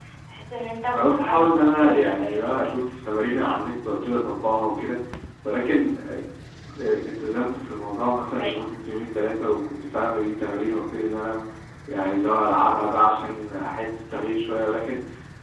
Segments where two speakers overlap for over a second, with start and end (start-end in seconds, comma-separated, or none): 0.9-2.5